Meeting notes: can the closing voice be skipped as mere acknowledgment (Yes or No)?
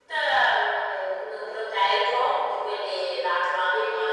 Yes